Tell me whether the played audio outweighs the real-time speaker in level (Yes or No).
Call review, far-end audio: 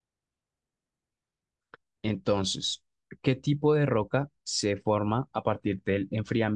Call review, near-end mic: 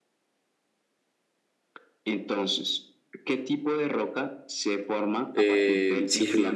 No